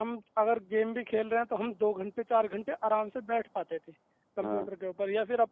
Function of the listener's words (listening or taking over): listening